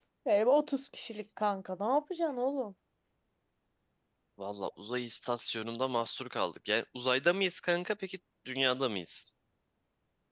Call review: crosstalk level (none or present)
none